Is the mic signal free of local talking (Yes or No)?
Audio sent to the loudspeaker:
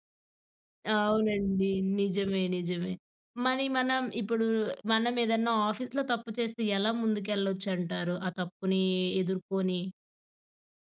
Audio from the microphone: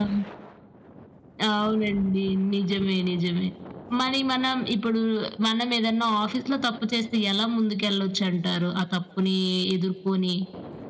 Yes